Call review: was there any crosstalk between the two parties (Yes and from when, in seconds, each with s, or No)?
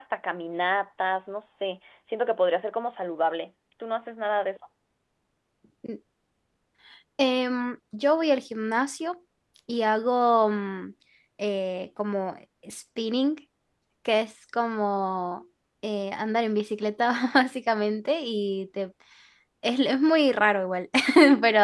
No